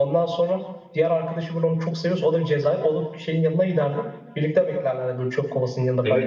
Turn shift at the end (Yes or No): Yes